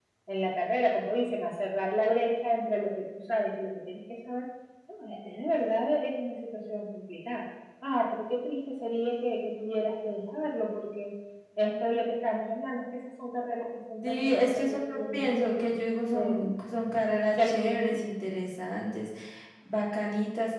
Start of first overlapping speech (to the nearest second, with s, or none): 14 s